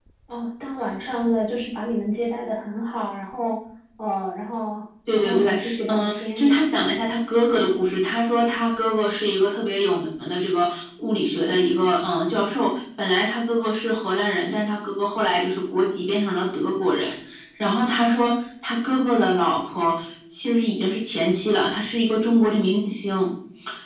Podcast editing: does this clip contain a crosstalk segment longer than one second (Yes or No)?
Yes